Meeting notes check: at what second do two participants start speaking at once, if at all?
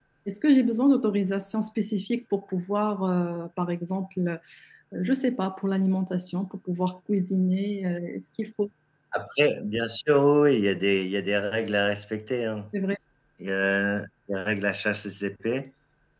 none

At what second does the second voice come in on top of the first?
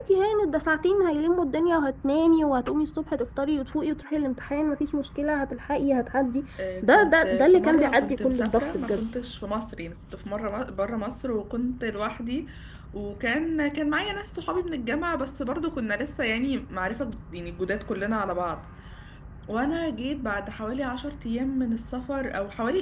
6.8 s

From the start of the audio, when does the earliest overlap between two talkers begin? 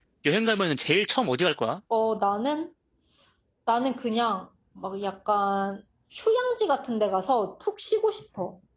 none

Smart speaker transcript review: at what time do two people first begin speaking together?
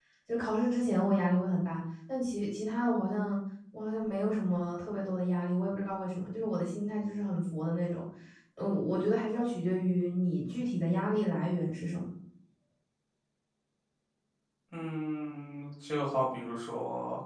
none

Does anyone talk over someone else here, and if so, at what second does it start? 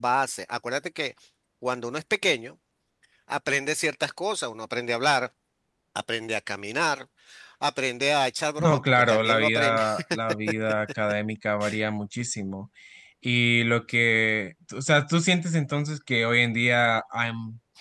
8.6 s

